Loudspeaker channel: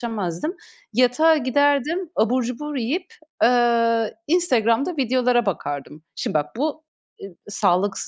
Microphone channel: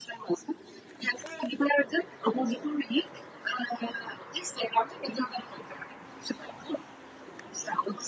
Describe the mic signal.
echo only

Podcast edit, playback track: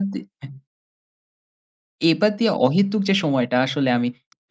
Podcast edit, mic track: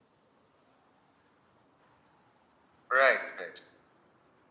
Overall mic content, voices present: user only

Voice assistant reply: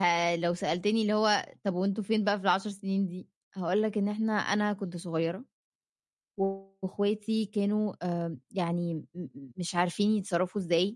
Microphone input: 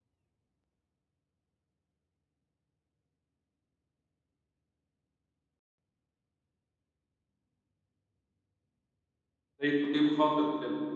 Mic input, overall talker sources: user only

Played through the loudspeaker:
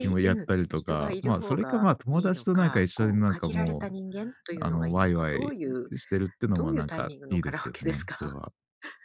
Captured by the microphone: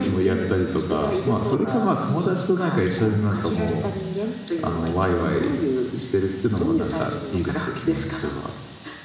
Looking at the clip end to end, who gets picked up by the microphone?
echo only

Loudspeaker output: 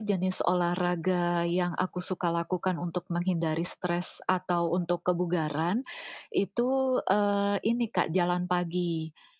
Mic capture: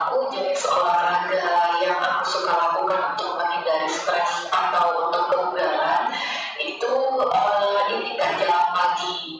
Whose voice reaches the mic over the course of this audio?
echo only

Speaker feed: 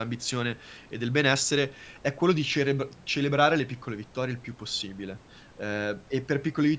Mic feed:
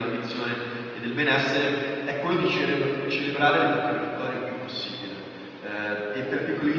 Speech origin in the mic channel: echo only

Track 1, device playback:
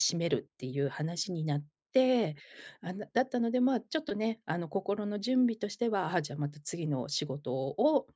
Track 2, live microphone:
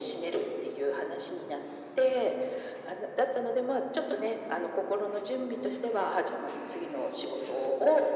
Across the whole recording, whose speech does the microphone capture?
echo only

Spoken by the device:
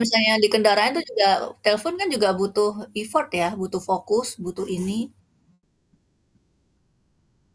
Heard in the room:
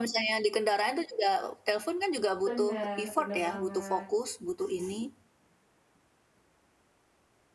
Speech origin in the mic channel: both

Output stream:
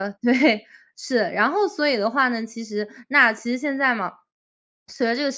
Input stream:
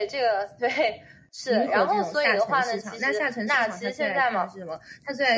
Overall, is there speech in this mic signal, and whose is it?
both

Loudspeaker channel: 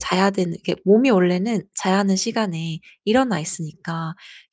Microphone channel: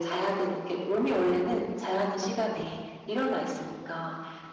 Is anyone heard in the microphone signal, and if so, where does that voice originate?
echo only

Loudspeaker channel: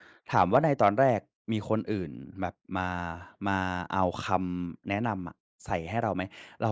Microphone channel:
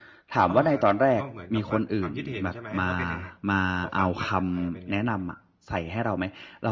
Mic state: both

